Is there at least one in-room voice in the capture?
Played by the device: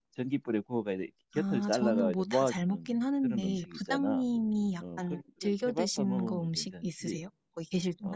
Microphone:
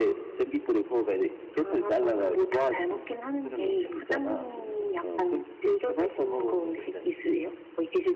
Yes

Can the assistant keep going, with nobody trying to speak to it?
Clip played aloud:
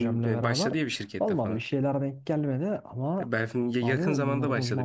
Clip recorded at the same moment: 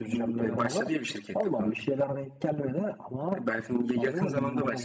Yes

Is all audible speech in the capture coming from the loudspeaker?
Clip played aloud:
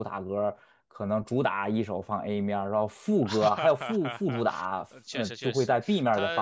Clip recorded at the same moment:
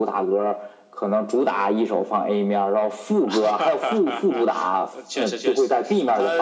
Yes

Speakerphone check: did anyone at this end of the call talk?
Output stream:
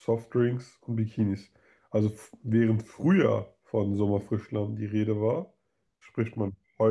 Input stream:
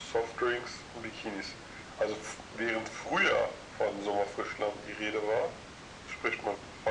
No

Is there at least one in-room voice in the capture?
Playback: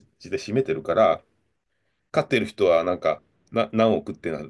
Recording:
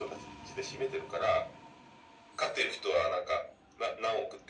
No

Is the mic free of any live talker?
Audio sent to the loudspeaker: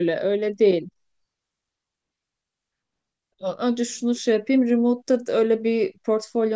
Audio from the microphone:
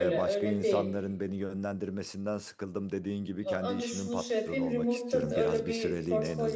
No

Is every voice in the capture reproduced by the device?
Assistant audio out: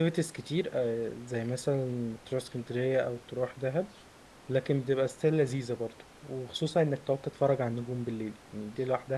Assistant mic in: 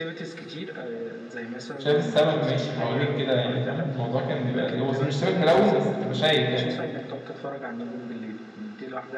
No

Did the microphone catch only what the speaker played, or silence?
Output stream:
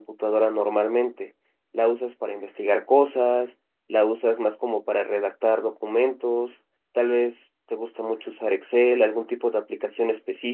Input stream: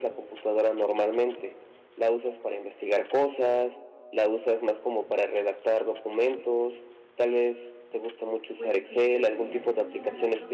No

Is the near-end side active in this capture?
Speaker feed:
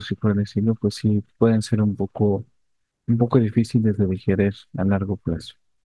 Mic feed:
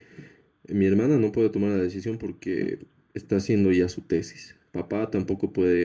Yes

